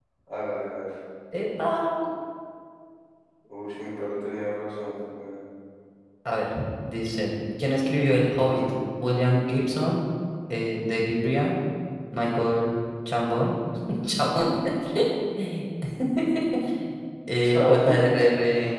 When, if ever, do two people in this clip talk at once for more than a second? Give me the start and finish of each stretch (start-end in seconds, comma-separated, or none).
none